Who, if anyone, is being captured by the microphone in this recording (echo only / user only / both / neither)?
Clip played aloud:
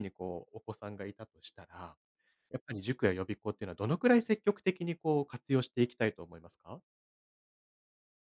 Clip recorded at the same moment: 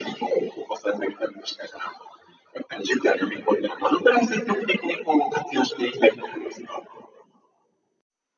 echo only